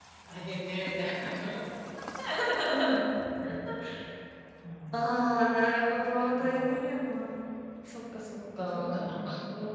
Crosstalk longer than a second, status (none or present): none